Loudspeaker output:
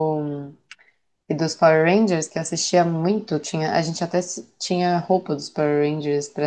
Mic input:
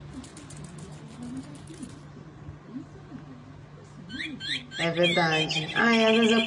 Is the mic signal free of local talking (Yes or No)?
No